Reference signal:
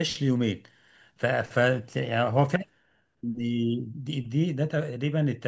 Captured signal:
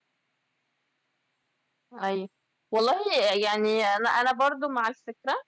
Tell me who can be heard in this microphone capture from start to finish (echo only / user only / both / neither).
user only